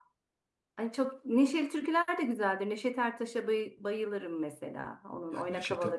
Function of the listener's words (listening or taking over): taking over